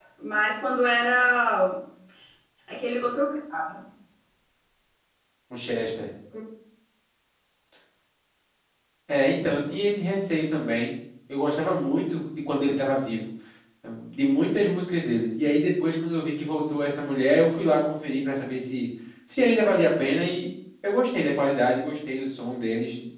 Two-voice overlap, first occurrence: none

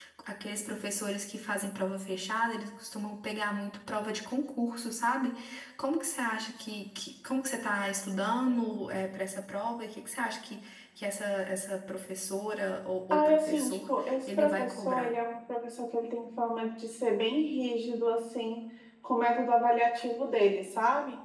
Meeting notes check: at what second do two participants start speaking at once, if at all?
13.1 s

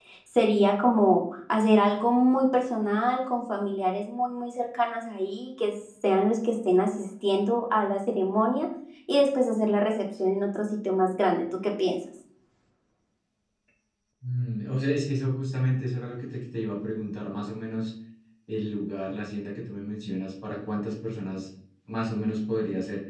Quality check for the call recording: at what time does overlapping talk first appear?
none

